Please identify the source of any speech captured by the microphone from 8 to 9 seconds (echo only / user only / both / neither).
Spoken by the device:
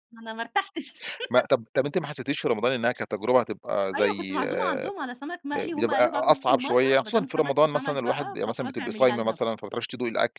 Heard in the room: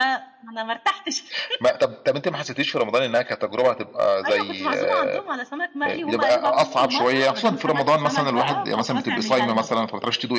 echo only